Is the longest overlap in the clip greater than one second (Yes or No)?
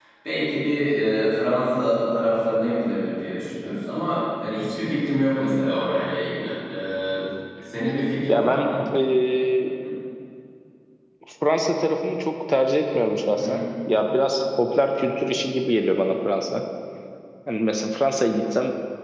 No